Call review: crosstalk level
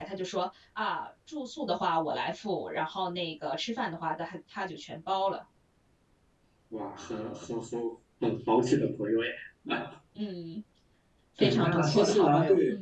present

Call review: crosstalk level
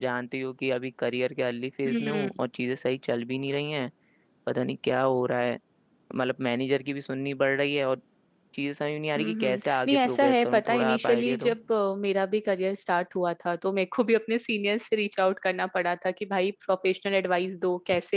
present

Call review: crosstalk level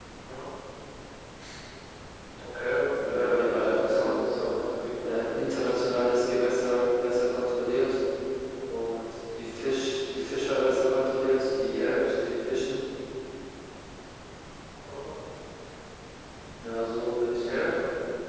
present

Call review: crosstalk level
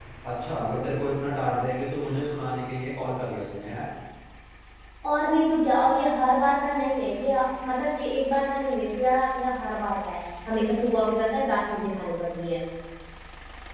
none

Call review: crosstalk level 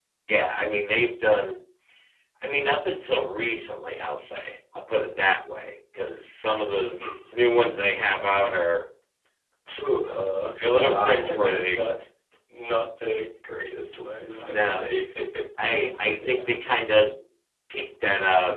present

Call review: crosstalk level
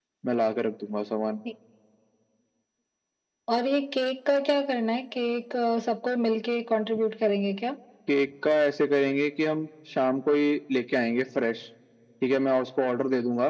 none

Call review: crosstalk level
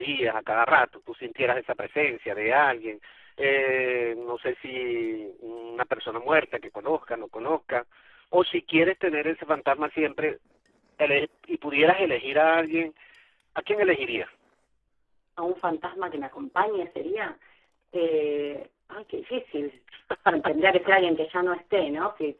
none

